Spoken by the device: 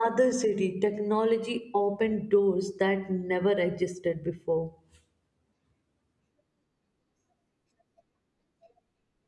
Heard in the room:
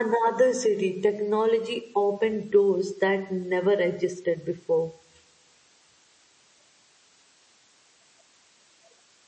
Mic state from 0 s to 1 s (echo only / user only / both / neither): echo only